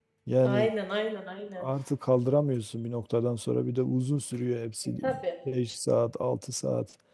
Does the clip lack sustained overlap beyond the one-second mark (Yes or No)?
Yes